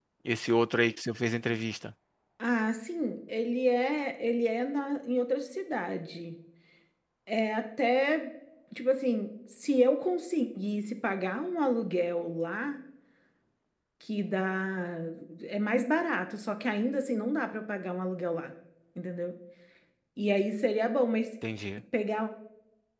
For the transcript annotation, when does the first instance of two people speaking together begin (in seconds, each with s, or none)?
none